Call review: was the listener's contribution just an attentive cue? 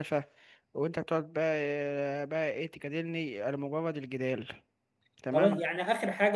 No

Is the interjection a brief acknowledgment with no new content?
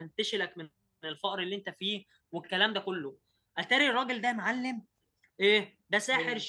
Yes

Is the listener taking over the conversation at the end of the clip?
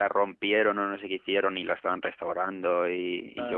No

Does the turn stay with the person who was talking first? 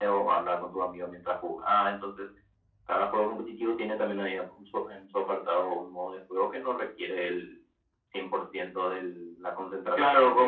No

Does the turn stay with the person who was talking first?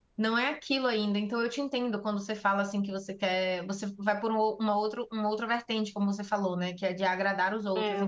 No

